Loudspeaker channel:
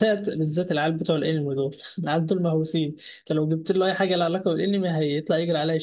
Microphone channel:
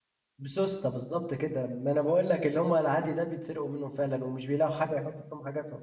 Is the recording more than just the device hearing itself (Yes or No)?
Yes